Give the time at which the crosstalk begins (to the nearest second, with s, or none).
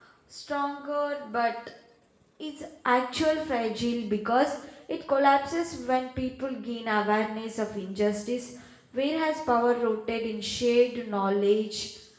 none